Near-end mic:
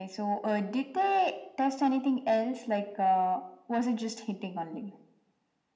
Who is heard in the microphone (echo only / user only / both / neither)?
echo only